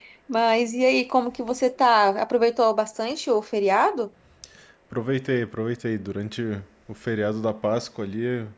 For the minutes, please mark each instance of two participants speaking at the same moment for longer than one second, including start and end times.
none

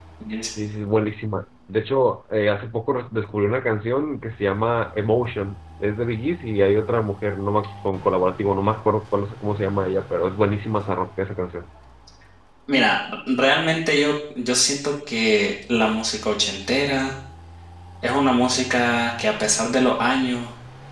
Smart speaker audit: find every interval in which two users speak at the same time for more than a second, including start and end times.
none

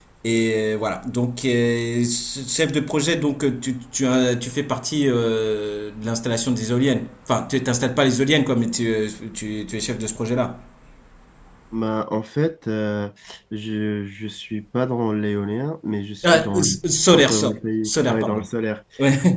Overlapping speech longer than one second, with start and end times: 17.1-18.5

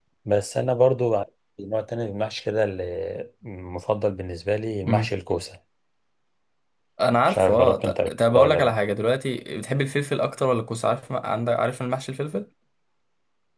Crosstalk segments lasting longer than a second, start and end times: 7.3-8.7

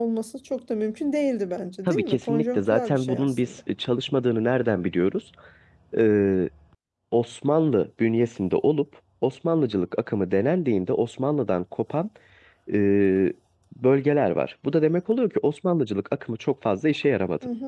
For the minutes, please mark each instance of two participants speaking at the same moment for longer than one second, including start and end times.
1.9-3.5

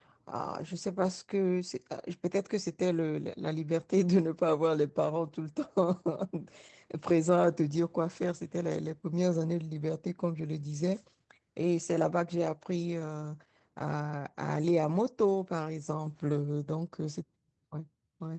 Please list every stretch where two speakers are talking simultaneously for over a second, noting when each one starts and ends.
none

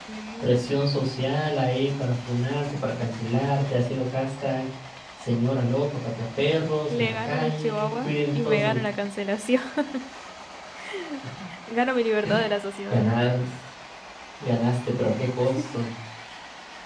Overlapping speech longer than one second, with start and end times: 6.9-8.8

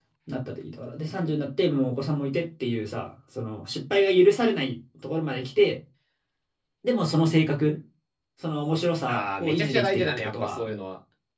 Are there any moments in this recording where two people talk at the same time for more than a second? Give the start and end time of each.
9.1-10.6

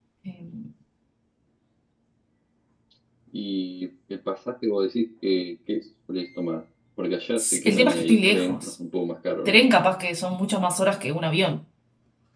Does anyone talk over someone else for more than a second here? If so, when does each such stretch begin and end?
7.4-8.7

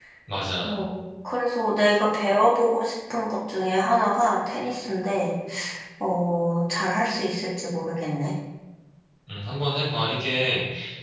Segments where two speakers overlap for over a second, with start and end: none

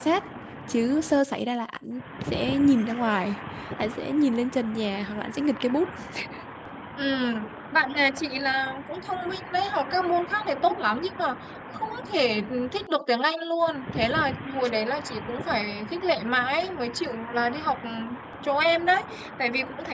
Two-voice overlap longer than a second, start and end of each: none

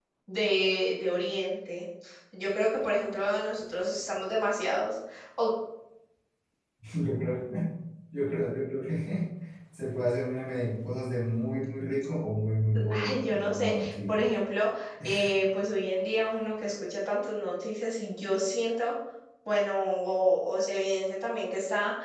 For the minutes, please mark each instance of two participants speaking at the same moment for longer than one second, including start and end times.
12.9-14.2

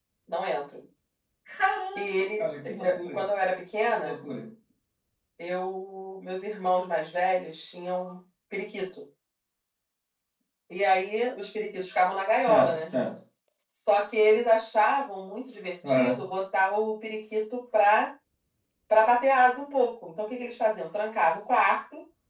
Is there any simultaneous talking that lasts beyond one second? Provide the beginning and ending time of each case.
1.9-3.1

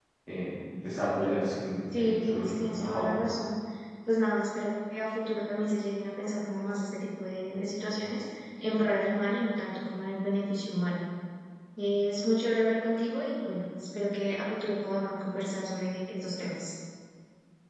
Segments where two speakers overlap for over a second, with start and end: 2.0-3.2

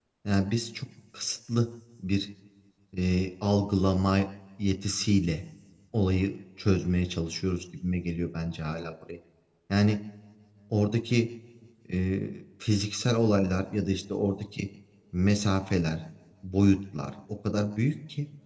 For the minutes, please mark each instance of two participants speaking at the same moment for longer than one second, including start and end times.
none

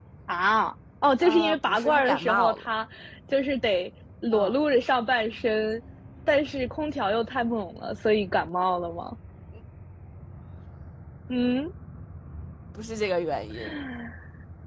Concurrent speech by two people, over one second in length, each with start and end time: 1.2-2.7

